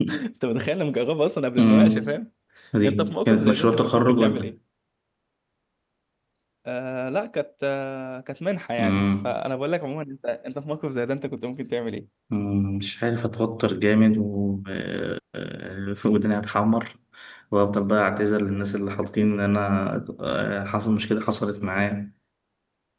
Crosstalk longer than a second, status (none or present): present